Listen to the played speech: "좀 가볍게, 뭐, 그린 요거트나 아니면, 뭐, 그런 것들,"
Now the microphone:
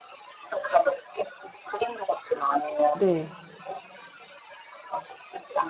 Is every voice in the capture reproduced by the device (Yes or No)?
No